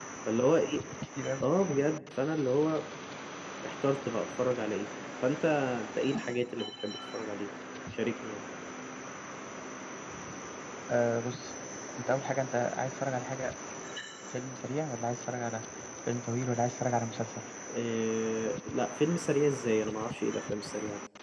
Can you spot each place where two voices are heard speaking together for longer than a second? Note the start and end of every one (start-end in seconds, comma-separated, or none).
none